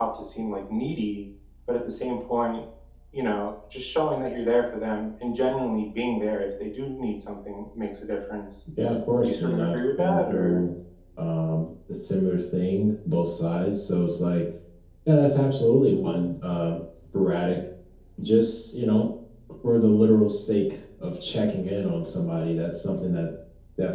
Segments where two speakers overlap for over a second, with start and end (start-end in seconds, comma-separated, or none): 9.2-10.6